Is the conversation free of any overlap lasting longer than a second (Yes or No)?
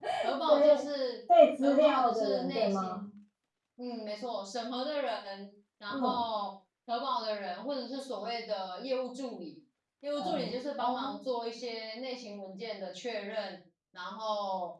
No